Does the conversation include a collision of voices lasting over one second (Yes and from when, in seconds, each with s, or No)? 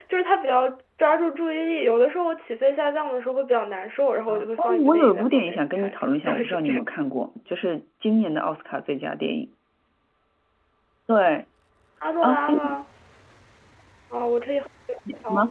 Yes, from 4.3 s